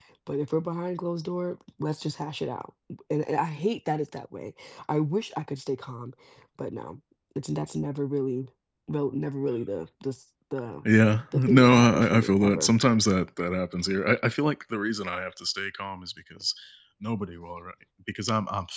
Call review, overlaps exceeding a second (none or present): present